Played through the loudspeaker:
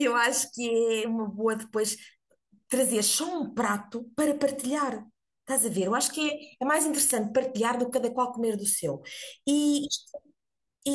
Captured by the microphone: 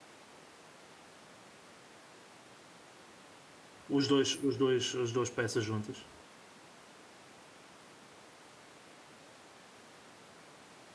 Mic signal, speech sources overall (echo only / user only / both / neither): user only